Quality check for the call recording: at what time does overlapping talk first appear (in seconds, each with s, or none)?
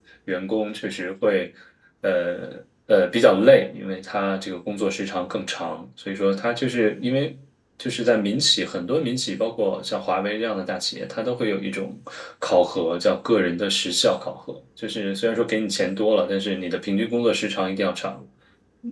none